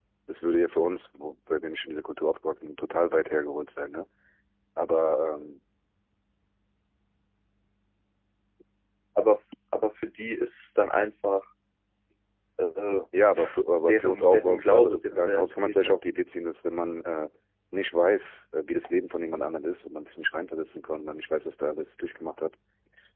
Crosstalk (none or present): present